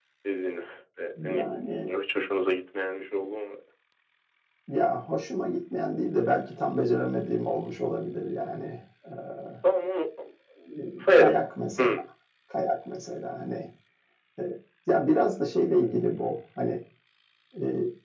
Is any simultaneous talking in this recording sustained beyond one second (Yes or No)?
No